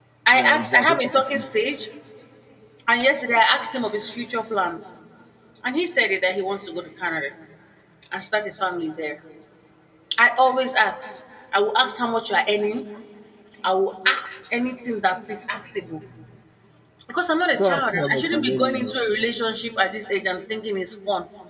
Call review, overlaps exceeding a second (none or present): present